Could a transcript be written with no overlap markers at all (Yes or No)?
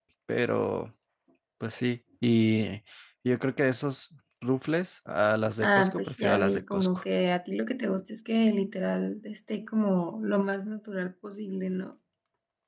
No